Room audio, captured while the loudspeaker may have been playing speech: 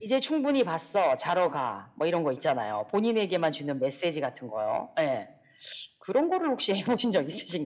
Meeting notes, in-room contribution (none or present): none